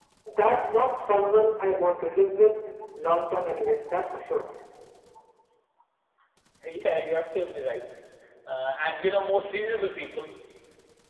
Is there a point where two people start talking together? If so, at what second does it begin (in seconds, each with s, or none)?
none